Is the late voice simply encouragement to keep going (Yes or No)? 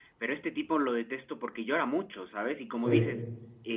Yes